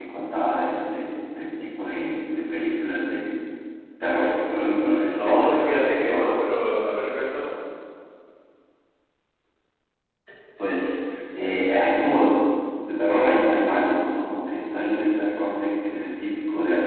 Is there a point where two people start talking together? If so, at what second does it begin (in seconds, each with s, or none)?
4.8 s